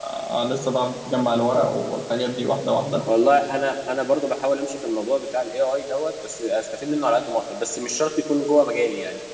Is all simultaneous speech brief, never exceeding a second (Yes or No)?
Yes